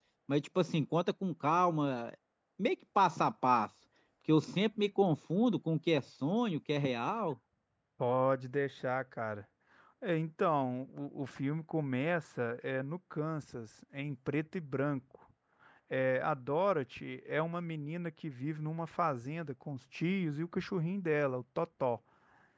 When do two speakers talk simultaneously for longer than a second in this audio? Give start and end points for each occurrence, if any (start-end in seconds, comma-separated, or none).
none